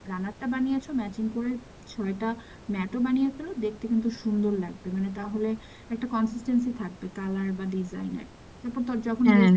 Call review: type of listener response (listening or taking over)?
listening